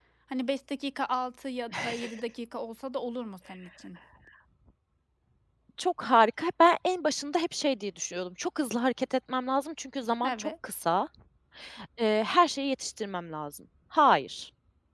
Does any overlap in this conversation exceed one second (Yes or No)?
No